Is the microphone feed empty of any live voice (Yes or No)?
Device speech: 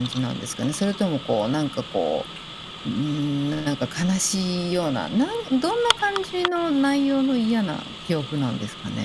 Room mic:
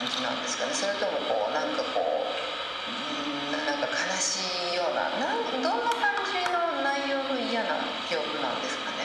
Yes